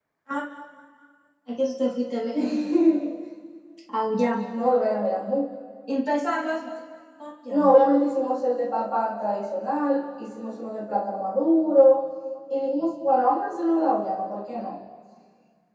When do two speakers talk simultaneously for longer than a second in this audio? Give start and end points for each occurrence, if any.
none

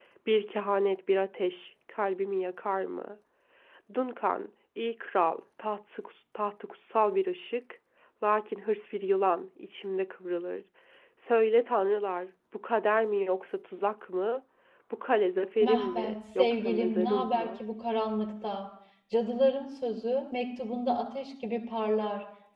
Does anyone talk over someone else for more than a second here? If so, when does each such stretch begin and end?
15.6-17.5

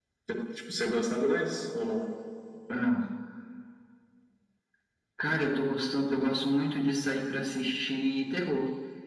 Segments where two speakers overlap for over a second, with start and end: none

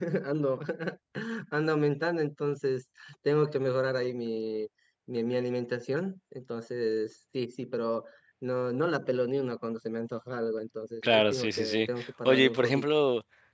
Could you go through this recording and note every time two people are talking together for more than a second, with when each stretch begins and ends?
11.0-12.8

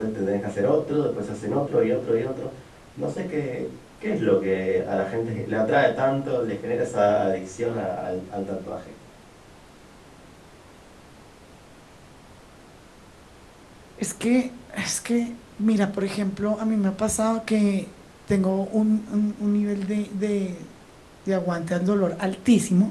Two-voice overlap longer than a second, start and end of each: none

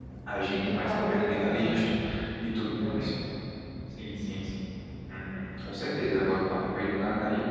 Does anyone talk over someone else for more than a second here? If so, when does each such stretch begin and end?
0.6-1.8

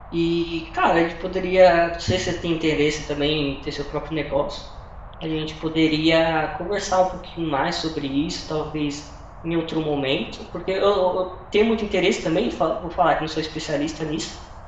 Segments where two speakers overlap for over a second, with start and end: none

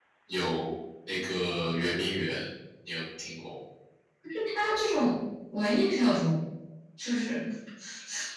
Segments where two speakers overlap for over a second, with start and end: none

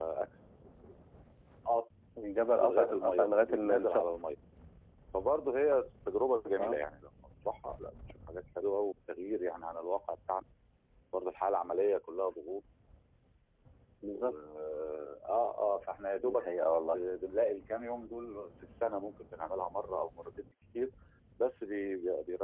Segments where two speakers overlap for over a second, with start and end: 2.6-4.0

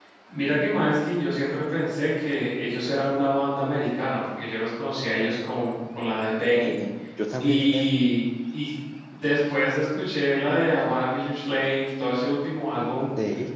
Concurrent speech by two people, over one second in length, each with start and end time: none

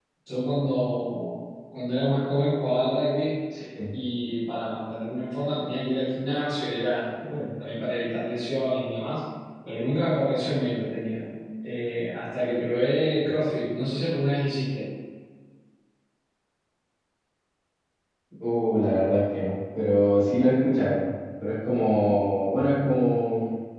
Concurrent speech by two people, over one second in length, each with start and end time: none

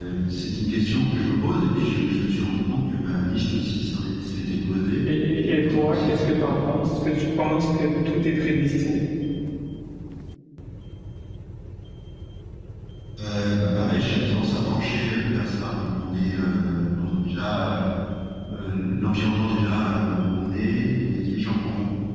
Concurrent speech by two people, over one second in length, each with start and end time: 5.1-6.6

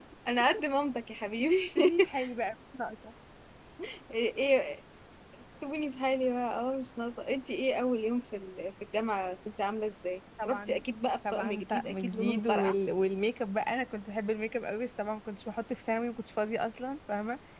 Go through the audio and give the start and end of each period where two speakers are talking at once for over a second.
11.3-12.7

